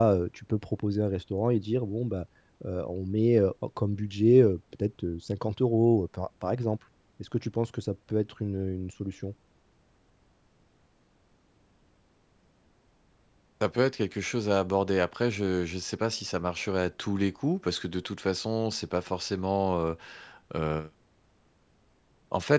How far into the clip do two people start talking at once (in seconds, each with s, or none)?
none